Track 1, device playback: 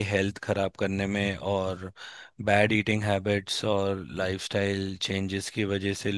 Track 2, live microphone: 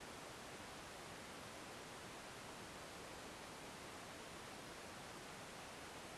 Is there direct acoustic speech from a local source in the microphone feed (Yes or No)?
No